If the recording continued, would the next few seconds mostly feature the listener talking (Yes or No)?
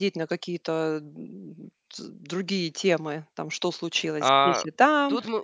Yes